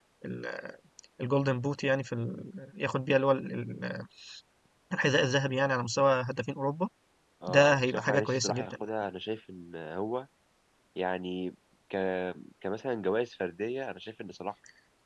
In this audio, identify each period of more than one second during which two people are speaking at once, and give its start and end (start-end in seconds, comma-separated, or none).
7.5-8.7